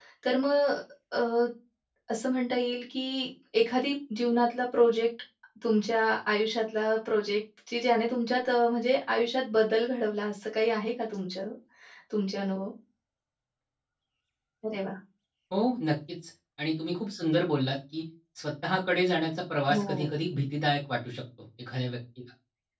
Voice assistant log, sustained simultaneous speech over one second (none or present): none